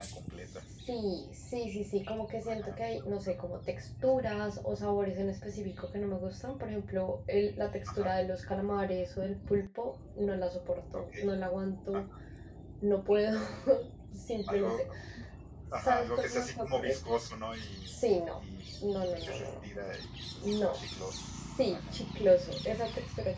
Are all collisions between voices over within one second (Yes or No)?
No